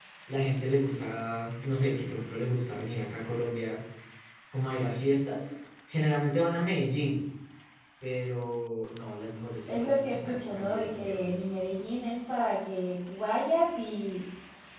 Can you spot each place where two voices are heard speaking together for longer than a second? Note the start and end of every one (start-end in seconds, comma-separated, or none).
9.7-11.4